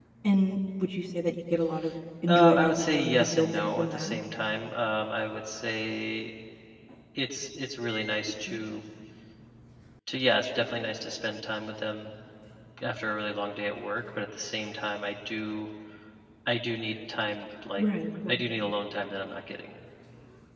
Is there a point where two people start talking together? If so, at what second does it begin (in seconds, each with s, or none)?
2.3 s